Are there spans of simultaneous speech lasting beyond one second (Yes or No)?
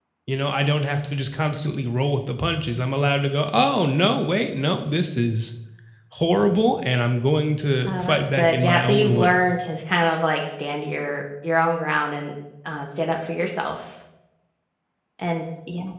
Yes